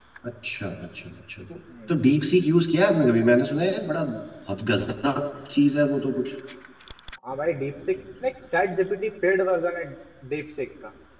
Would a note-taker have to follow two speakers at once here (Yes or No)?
No